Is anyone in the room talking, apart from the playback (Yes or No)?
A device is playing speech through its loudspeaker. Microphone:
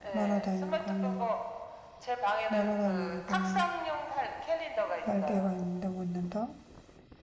Yes